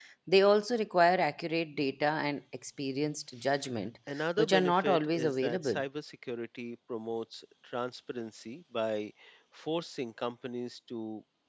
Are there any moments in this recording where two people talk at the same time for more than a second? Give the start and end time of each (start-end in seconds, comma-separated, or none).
4.4-5.8